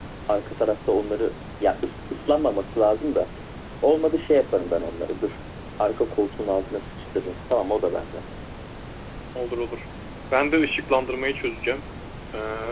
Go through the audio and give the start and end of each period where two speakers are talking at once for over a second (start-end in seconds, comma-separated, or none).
none